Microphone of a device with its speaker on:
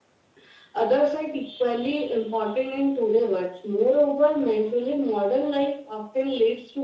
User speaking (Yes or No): No